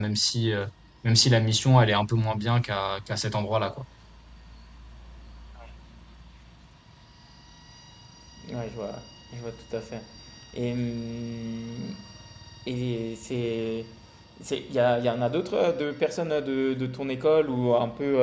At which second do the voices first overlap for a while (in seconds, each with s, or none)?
none